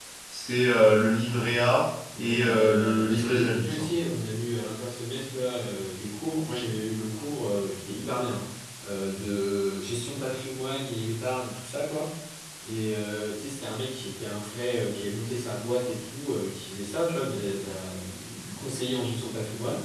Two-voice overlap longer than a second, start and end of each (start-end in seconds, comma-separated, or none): 2.2-3.9